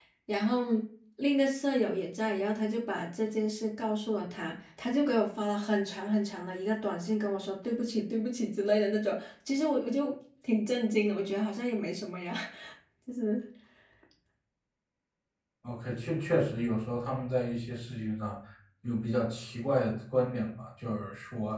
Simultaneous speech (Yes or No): No